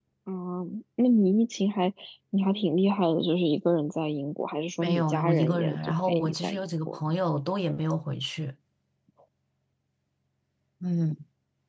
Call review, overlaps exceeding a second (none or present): present